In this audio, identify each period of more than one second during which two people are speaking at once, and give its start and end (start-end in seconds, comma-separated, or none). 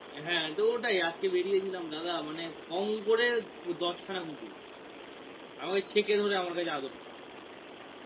none